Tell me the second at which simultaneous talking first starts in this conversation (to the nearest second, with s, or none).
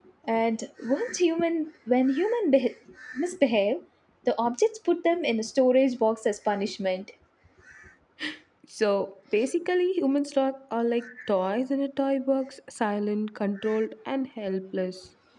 none